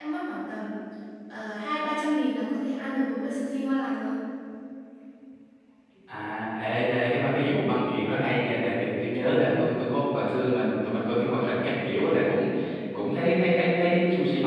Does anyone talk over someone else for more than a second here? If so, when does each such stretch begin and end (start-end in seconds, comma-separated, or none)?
none